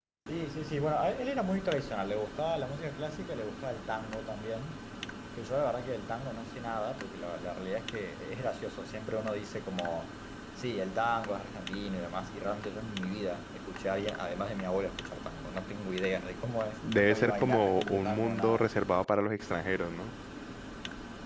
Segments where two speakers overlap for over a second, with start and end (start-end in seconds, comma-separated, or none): 16.9-18.7